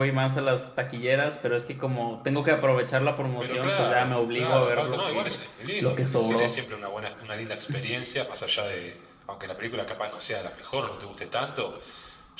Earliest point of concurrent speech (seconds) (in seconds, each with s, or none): 3.4 s